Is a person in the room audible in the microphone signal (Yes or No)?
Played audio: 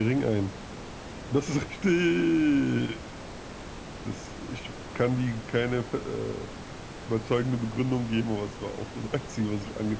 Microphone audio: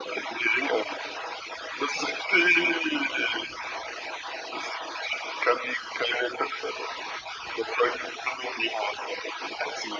No